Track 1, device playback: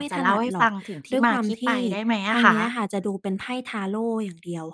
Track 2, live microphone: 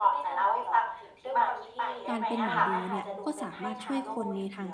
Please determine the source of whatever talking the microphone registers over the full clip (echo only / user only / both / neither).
both